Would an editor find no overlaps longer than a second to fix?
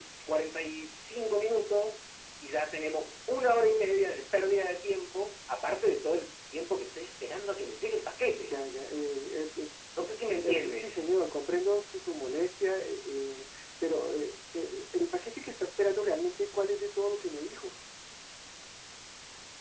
Yes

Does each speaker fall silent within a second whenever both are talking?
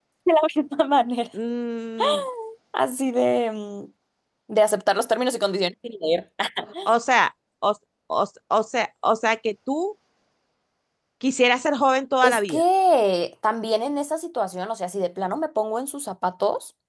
Yes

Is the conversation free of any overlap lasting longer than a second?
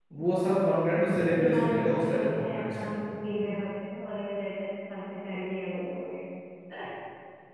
No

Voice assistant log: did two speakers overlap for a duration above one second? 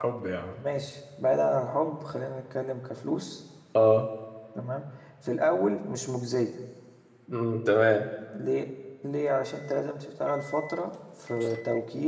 No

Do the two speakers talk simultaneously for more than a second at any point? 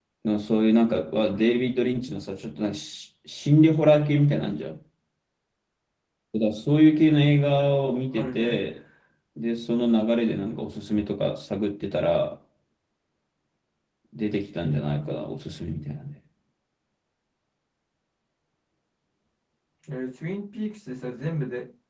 No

